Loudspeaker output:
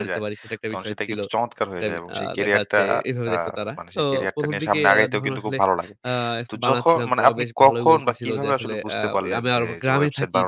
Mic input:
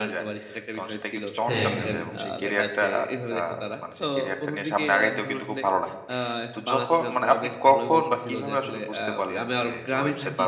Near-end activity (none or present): present